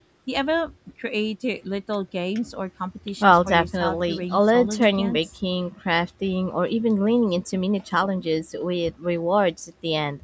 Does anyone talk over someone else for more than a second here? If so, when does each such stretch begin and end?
3.2-5.3

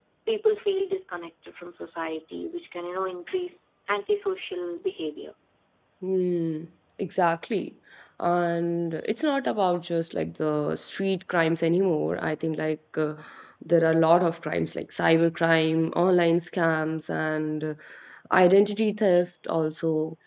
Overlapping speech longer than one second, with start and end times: none

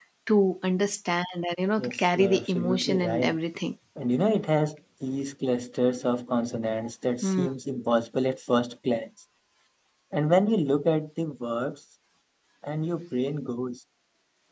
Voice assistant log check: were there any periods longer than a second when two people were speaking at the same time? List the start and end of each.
1.8-3.4

